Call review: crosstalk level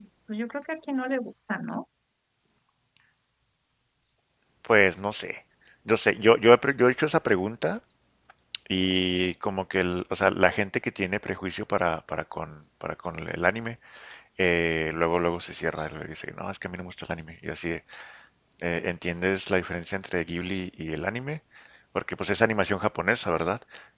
none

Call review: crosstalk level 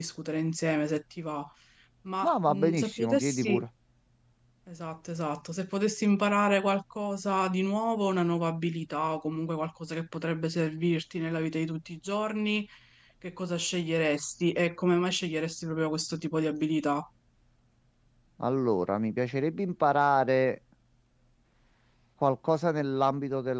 present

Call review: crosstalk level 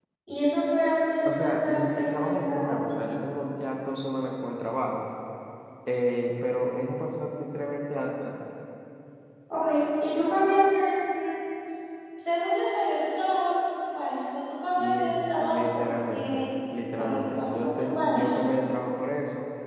present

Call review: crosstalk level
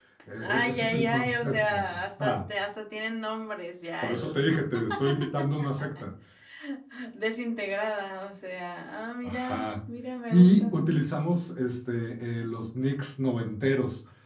present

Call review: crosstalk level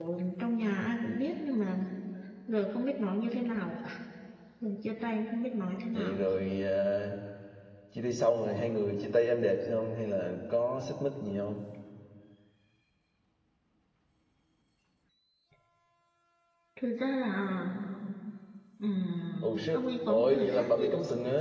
present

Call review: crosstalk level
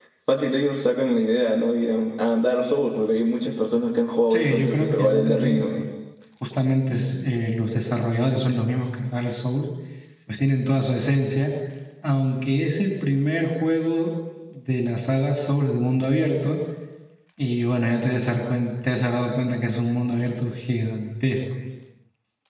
present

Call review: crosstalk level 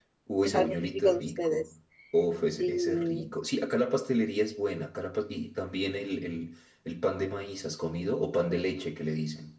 present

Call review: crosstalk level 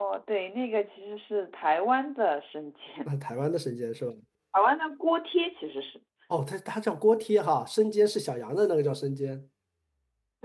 none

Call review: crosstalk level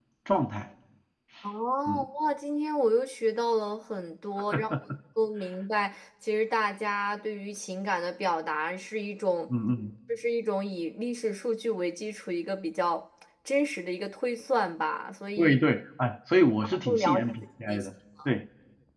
present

